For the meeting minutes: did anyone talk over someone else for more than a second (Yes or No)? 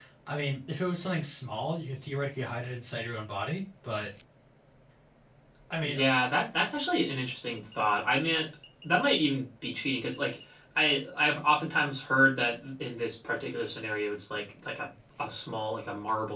No